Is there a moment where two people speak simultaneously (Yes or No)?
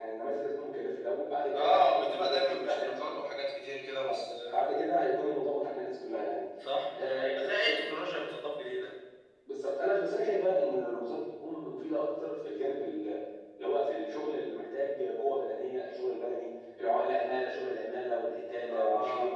Yes